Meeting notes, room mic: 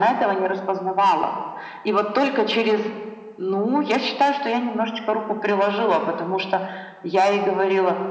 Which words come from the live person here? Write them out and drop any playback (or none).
none